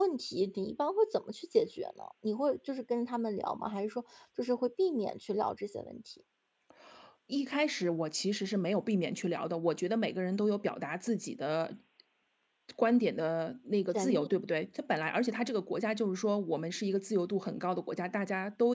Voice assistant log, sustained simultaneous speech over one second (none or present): none